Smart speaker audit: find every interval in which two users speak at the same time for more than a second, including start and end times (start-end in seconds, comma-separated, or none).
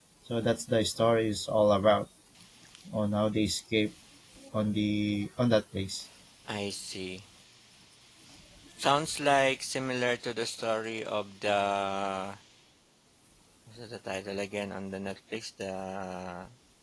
none